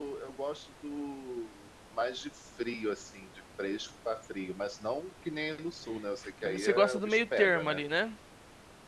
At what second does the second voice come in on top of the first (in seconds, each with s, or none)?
6.4 s